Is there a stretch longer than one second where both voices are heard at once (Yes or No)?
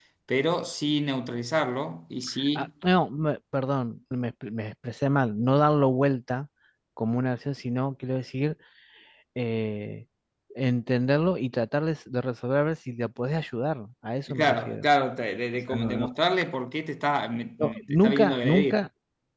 Yes